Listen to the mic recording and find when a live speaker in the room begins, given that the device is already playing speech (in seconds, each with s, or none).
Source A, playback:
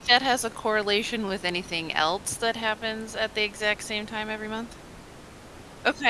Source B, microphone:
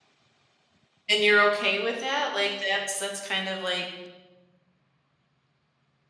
1.1 s